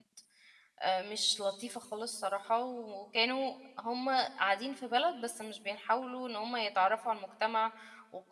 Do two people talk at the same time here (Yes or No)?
No